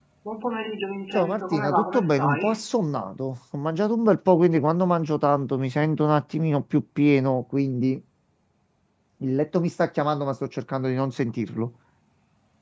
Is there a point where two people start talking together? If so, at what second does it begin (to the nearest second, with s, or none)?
1 s